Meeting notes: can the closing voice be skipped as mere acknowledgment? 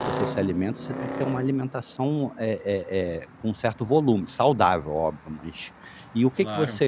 Yes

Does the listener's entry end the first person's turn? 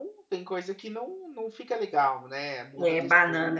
Yes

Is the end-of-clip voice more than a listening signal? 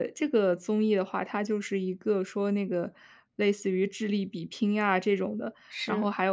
No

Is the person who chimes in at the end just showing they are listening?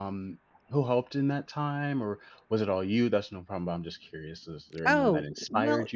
No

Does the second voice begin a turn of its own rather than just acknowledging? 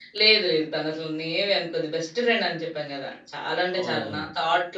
No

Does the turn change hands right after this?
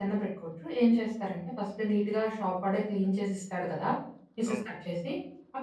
No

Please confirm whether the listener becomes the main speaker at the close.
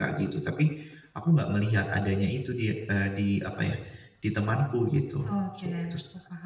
Yes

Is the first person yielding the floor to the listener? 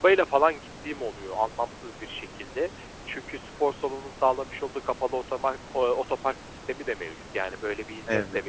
No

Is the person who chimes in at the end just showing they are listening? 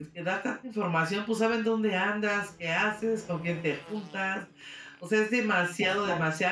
Yes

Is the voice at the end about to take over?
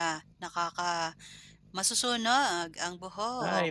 Yes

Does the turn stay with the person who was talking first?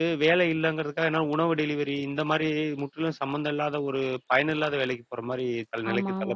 No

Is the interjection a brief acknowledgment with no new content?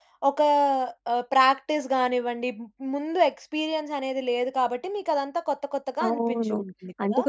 No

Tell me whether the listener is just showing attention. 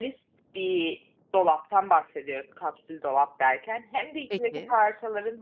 Yes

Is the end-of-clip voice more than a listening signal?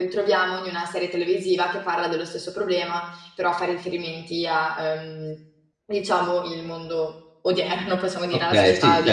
Yes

